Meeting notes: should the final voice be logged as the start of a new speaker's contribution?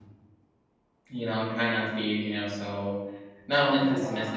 No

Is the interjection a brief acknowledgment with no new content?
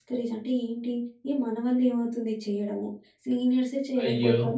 Yes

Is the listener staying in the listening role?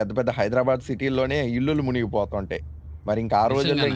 Yes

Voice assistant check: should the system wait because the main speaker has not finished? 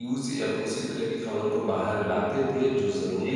Yes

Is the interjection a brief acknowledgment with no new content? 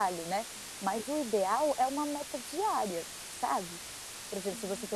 Yes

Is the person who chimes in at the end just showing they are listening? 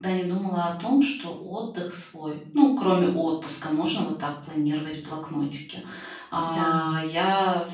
Yes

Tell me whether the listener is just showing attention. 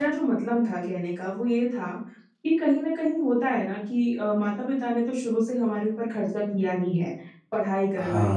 Yes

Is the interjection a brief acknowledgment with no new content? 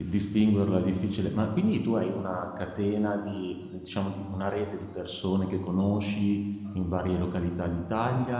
No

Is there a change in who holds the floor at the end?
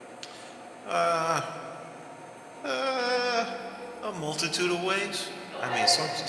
No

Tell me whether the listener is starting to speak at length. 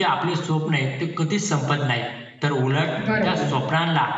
No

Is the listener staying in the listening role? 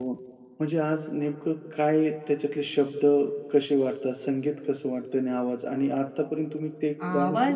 No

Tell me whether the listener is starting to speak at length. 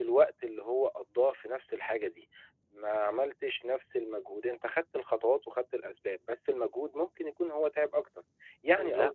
No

